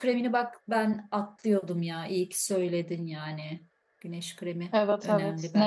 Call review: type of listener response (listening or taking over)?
taking over